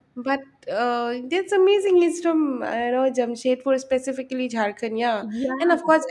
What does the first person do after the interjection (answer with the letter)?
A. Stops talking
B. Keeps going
B